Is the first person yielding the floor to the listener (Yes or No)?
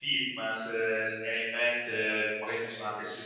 No